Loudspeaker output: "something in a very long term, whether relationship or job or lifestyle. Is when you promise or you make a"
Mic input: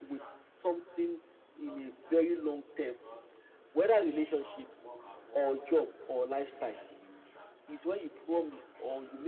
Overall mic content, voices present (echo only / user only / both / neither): both